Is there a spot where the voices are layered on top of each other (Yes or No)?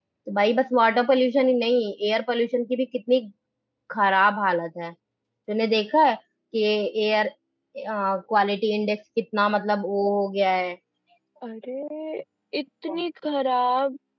No